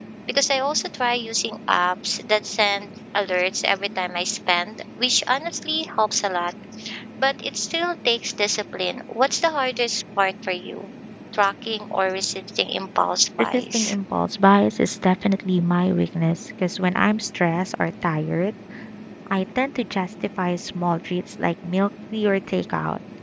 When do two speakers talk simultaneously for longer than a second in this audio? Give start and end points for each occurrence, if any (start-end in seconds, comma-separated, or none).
none